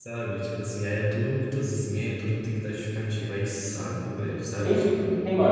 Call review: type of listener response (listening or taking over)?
taking over